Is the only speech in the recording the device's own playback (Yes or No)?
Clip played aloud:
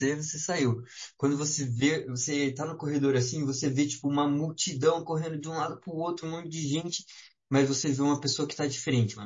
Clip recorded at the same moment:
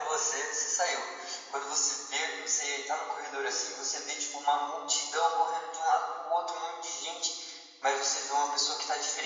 Yes